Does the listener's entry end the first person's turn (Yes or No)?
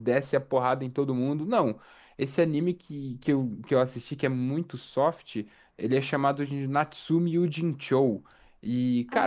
No